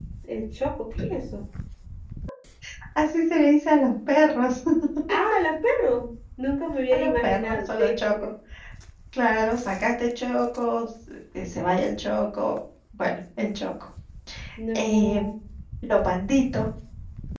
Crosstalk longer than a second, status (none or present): present